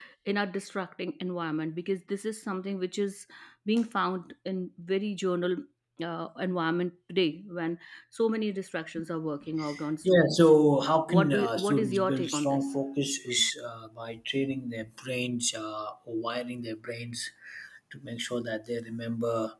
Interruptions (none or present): present